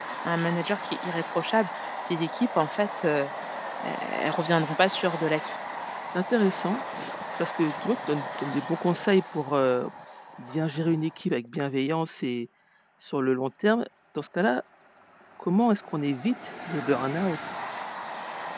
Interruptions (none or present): none